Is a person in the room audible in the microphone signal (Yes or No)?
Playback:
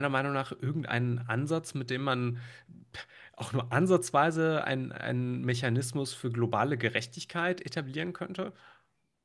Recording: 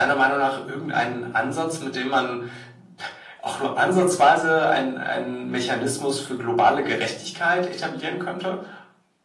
No